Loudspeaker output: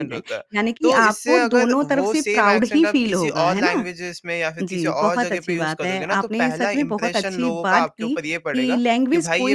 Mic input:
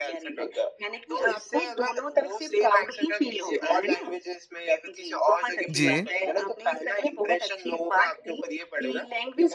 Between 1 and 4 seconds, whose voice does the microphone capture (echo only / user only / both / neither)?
echo only